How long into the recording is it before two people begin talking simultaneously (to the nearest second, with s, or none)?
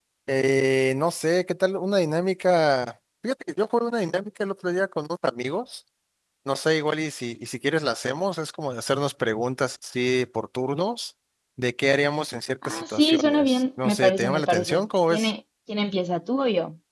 13 s